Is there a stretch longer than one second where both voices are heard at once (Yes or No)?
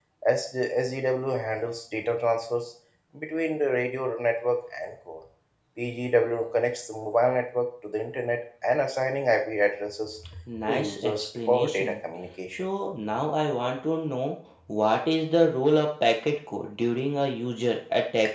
Yes